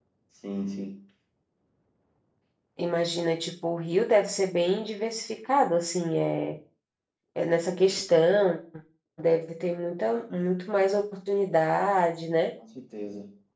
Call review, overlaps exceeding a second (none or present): none